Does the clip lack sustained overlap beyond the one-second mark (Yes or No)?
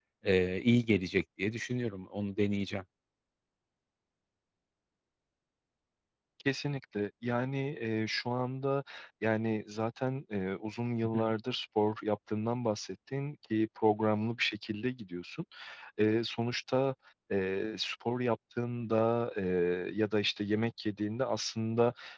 Yes